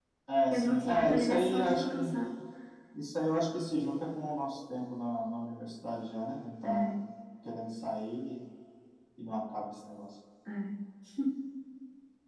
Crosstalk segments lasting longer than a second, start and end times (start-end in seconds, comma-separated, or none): 0.5-2.0